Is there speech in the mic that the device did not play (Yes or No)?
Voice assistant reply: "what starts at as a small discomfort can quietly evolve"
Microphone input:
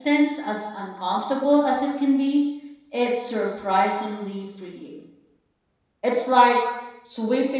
Yes